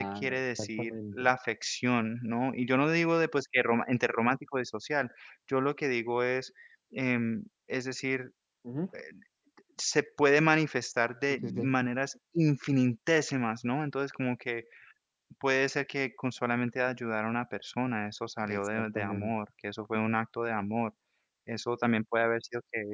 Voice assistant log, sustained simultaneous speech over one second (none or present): present